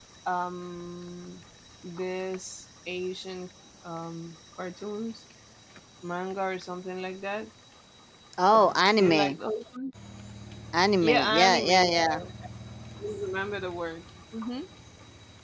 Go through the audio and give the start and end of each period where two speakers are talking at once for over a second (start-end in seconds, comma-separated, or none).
11.0-12.2